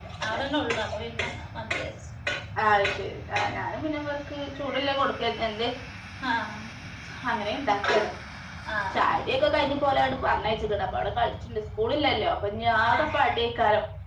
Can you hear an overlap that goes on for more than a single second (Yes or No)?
No